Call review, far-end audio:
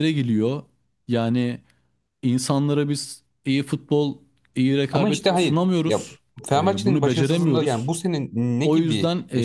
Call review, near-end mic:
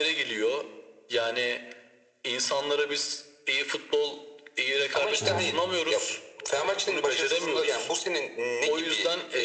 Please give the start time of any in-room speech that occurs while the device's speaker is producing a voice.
5 s

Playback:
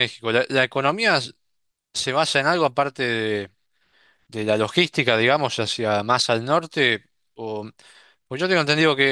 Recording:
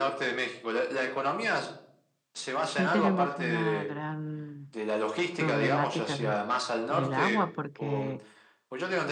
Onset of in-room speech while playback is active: 3 s

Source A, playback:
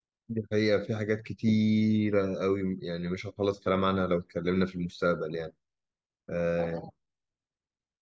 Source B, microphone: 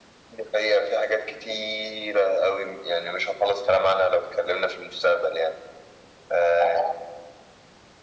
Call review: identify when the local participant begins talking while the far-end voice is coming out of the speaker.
none

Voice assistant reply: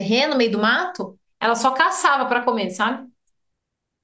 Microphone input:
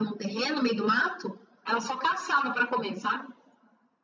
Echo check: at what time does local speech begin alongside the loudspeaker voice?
none

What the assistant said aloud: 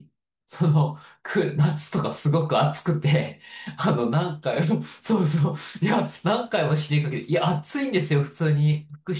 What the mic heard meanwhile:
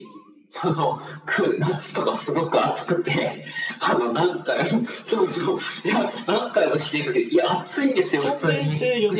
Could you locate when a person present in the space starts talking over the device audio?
8 s

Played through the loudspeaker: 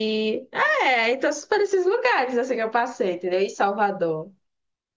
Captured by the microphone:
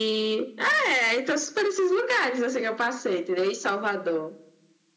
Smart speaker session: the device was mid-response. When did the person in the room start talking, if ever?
none

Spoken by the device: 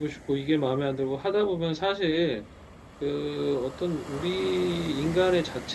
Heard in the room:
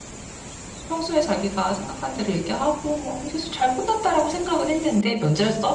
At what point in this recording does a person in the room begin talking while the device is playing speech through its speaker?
1 s

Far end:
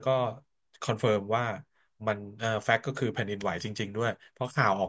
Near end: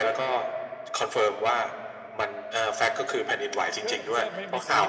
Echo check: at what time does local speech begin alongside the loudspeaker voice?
4 s

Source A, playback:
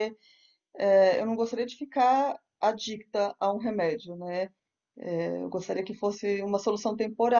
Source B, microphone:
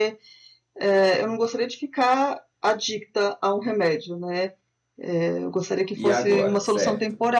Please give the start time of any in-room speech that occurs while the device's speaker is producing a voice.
6 s

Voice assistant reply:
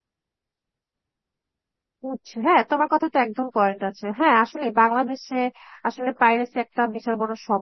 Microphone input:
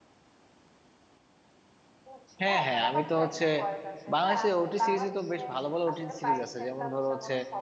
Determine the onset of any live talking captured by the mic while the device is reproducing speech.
2 s

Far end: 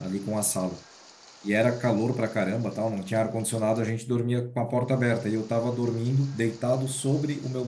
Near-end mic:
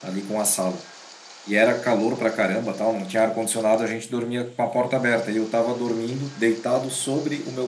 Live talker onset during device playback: none

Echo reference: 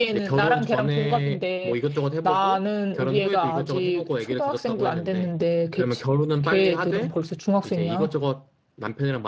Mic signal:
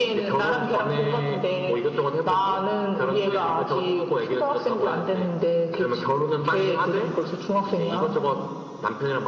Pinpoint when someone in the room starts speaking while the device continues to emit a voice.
none

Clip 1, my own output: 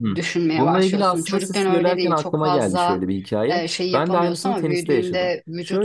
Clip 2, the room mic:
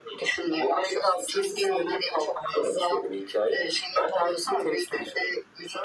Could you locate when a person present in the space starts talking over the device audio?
none

